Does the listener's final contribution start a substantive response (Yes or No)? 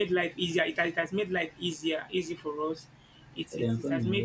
No